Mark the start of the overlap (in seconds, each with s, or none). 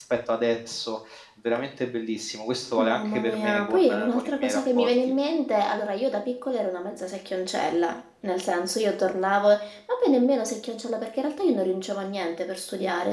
2.8 s